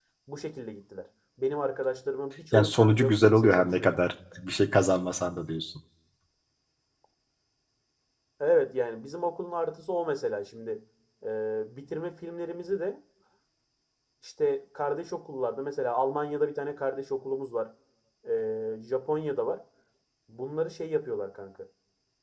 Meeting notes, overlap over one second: present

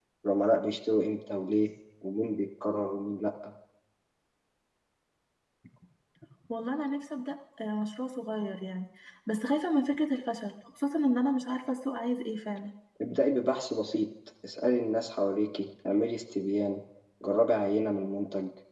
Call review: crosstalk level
none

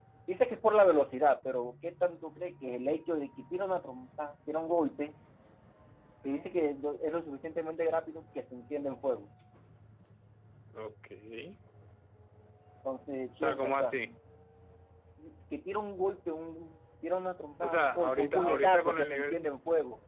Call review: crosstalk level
present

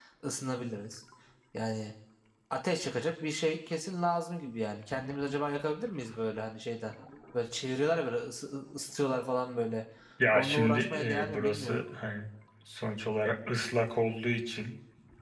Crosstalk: present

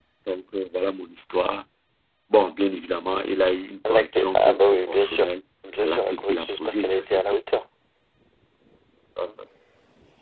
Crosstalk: present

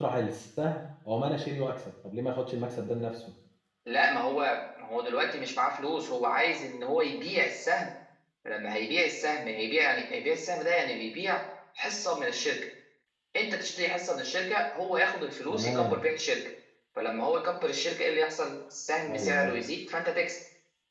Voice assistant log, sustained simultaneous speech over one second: none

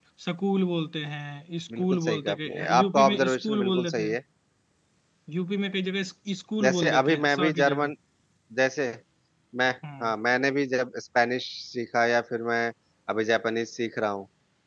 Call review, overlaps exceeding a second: present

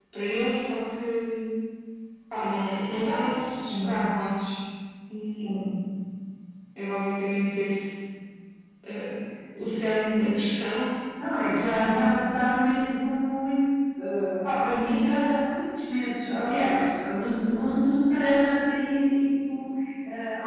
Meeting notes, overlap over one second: none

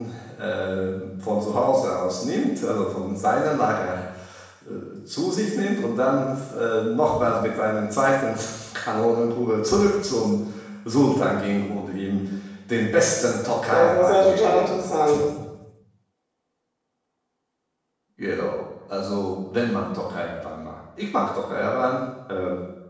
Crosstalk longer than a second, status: present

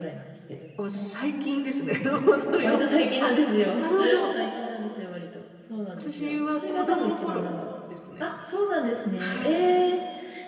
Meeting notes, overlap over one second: present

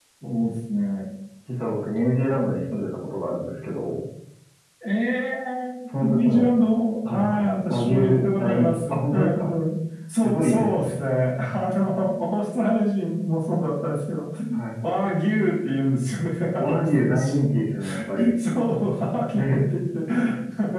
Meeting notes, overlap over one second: present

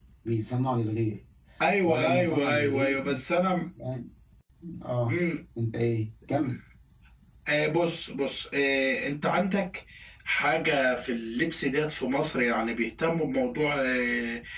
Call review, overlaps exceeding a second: present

